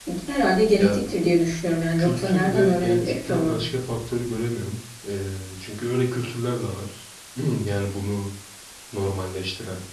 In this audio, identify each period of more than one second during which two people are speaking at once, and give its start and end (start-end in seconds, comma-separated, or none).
2.0-3.6